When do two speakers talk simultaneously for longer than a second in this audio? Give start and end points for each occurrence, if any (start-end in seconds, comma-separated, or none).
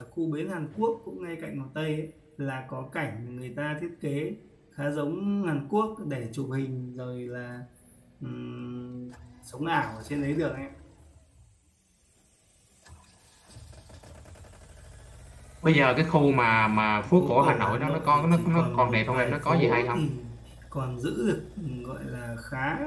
17.1-20.1